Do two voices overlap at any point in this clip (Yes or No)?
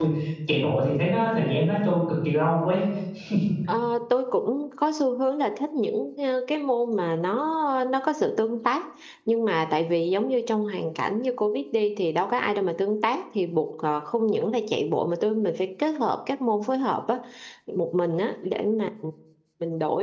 No